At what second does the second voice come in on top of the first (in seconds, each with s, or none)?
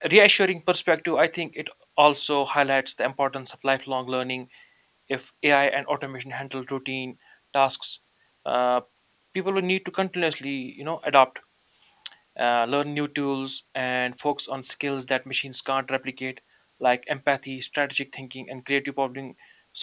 none